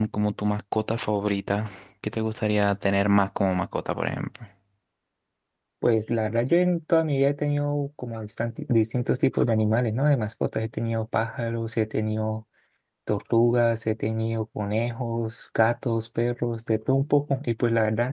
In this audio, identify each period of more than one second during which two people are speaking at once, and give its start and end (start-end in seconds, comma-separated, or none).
none